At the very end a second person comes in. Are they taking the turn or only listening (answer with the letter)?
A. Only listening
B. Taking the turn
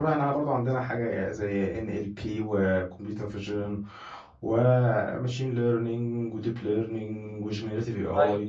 B